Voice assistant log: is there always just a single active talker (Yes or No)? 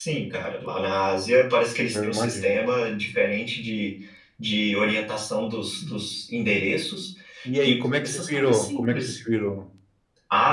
No